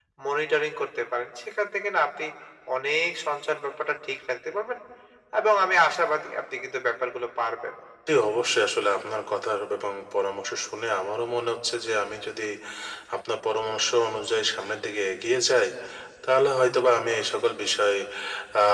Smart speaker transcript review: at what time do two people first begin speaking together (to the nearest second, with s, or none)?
none